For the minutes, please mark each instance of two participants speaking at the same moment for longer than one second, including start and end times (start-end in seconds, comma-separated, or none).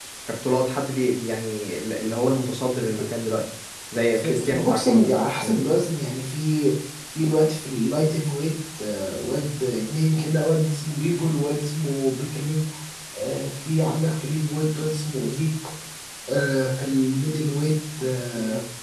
4.1-5.7